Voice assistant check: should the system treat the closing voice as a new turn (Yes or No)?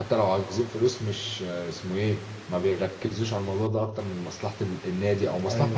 No